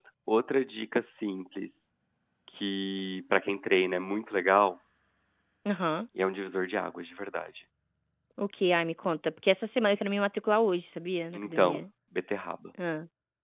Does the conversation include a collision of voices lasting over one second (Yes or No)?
No